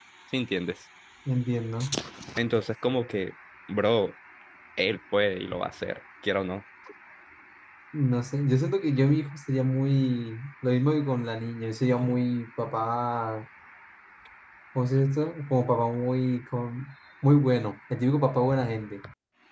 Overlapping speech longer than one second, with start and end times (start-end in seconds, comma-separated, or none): none